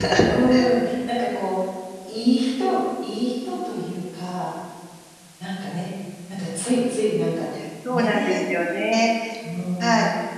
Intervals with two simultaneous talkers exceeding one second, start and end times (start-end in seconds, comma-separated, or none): none